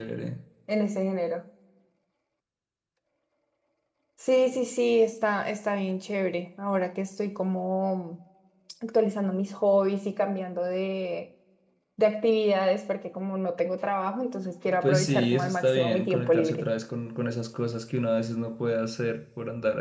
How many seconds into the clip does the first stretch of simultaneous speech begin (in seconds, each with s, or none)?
14.8 s